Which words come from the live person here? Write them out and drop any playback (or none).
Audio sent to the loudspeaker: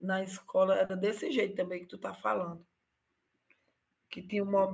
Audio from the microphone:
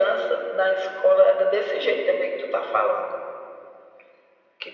none